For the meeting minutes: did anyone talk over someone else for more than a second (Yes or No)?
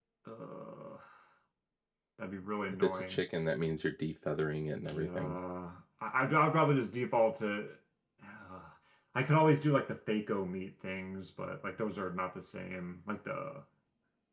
No